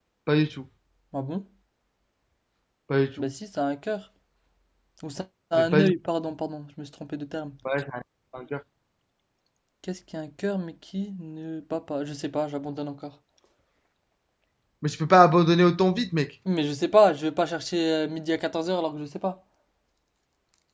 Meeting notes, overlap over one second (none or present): none